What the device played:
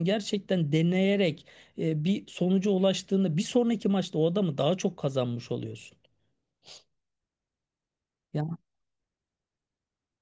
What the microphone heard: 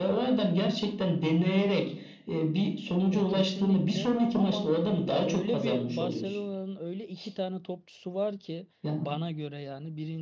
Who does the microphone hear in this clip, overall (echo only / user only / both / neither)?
both